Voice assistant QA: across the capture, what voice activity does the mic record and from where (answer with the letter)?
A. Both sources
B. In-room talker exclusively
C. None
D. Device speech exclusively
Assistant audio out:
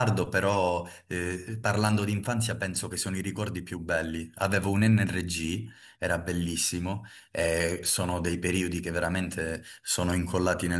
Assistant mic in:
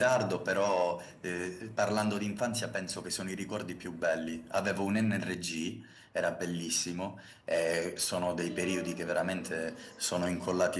A